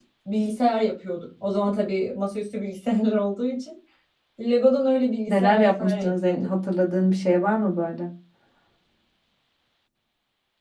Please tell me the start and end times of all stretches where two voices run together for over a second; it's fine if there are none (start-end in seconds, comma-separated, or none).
5.3-6.5